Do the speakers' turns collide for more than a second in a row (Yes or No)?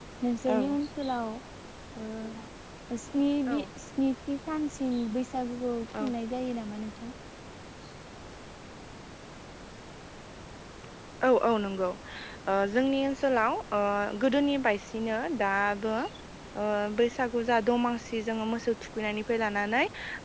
No